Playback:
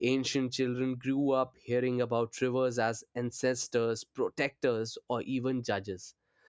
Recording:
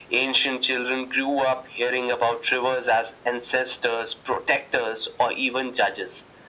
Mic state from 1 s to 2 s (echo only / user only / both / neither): echo only